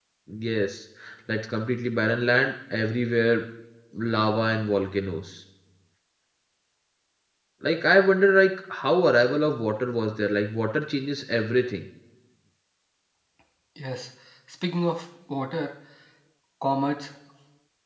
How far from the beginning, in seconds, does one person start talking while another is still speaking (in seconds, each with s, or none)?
none